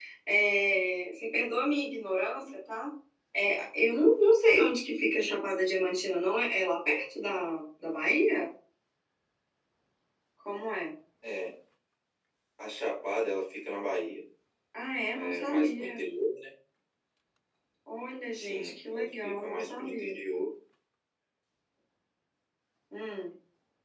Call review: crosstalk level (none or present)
present